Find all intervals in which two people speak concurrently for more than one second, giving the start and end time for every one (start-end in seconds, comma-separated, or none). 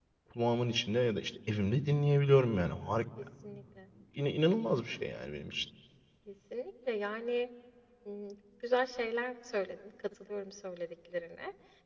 none